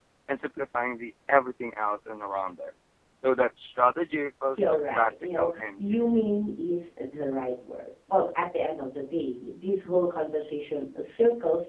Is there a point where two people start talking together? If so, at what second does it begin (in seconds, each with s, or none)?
4.5 s